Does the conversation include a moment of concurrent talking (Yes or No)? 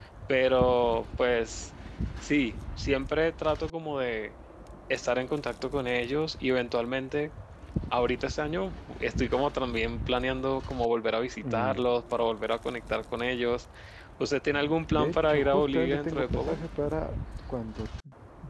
Yes